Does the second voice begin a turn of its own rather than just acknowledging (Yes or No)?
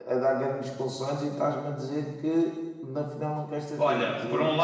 Yes